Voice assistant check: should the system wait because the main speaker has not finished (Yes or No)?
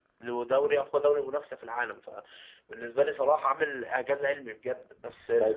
No